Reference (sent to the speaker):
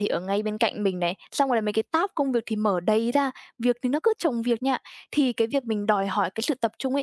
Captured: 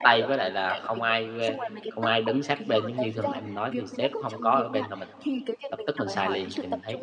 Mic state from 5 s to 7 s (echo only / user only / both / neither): both